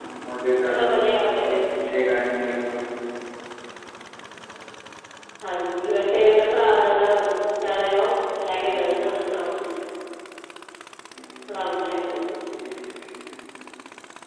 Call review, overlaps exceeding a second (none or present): none